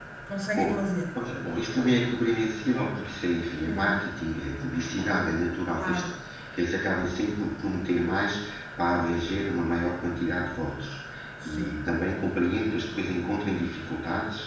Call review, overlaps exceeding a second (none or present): none